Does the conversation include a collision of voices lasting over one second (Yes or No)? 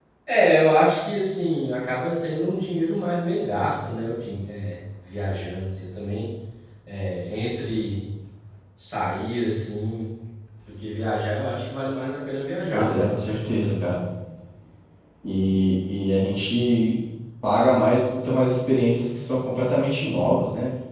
No